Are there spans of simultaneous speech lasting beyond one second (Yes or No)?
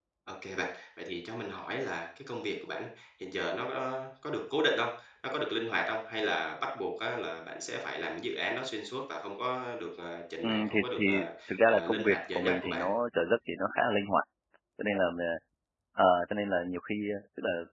Yes